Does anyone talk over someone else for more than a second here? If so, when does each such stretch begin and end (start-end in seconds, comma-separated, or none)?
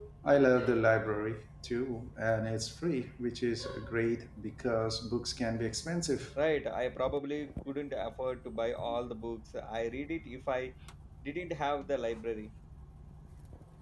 none